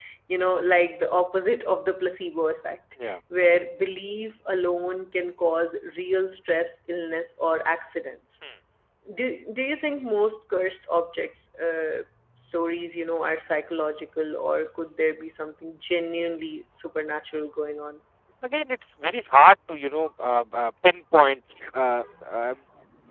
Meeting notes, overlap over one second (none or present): none